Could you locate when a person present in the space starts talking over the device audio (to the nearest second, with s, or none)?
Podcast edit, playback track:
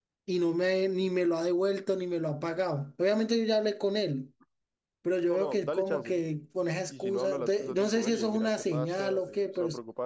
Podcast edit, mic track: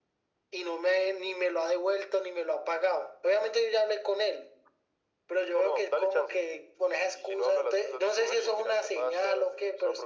none